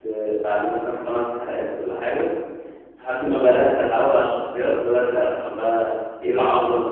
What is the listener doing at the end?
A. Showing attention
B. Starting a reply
B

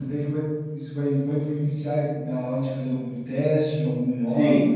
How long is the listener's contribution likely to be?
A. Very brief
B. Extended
B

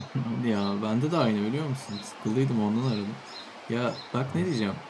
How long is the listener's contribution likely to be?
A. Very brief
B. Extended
A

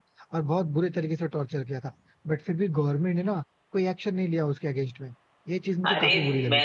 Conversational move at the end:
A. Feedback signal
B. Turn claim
B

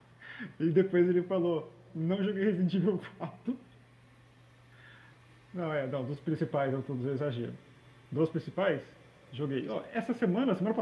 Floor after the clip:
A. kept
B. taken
A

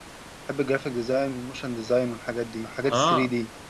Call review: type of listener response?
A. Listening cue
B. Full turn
B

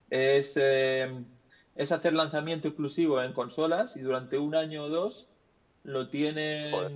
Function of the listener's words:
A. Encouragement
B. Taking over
A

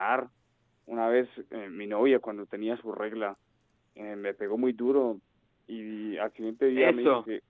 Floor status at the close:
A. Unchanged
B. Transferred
B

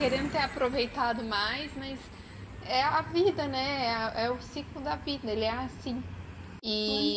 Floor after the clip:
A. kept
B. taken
B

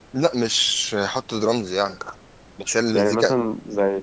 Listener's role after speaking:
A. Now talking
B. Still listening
A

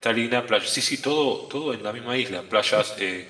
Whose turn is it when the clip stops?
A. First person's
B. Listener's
A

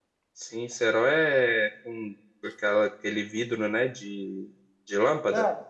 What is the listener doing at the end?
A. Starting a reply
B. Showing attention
A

